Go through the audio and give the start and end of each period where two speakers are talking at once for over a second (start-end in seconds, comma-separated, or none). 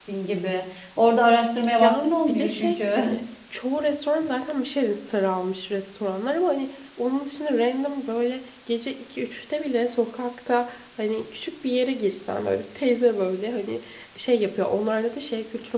1.8-3.0